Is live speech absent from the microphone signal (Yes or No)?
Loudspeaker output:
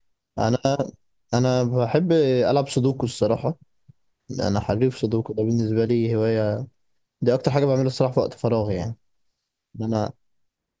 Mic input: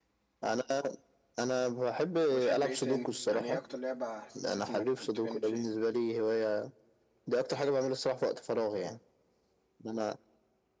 No